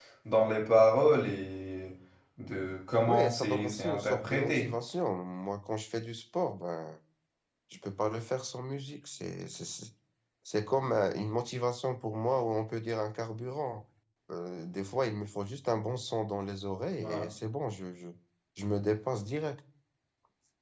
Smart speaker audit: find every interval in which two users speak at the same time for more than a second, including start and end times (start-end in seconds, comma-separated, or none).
3.1-4.7